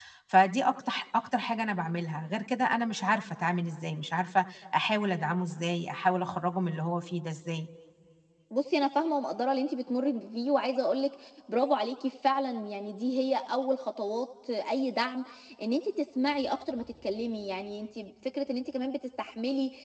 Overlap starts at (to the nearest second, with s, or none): none